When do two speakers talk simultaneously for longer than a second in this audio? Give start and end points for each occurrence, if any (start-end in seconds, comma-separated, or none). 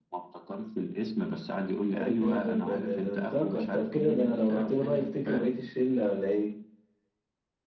1.9-5.5